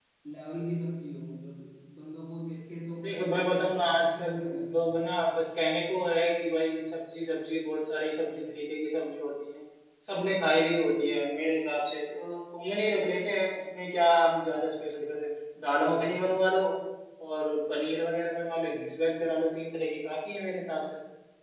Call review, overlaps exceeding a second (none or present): present